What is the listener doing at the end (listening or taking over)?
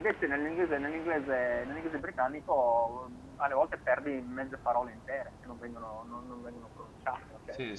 taking over